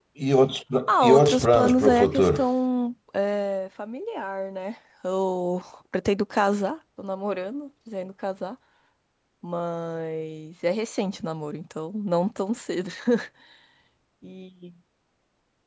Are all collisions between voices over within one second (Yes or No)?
No